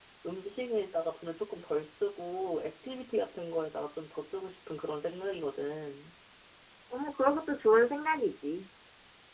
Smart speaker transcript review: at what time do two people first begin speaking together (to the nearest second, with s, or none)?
none